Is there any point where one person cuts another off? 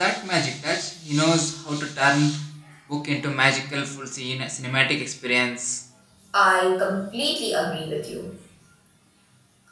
No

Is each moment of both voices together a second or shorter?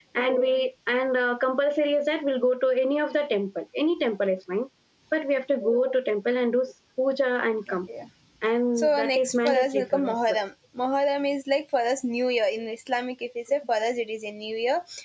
No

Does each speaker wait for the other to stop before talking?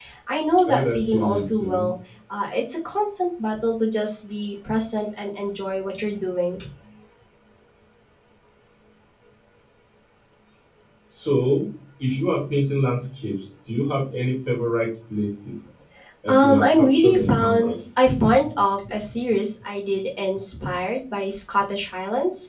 No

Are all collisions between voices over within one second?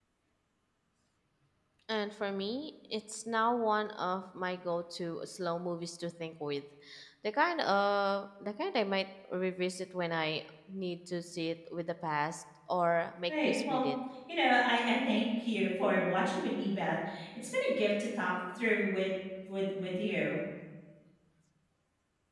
Yes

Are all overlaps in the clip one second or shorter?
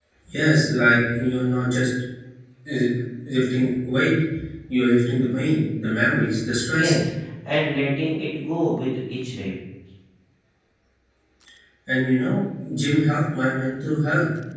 Yes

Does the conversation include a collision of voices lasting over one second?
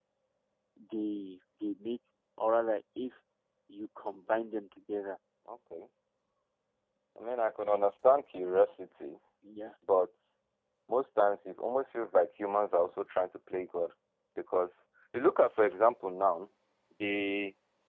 No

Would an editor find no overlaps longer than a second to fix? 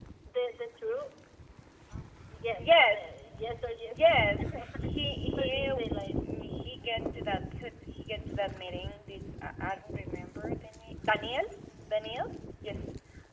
Yes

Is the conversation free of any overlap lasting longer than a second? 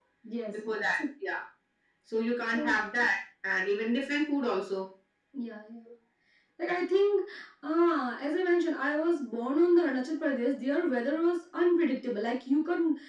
Yes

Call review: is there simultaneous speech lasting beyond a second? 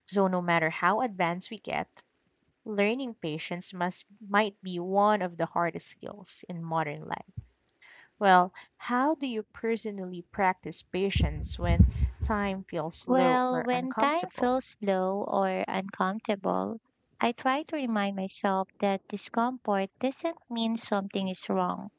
Yes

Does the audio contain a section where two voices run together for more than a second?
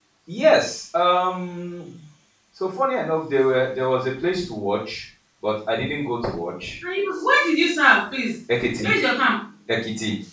No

